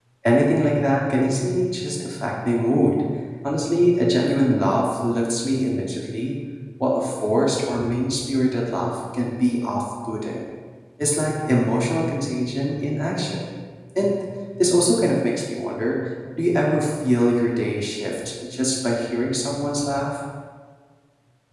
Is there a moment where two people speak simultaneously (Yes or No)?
No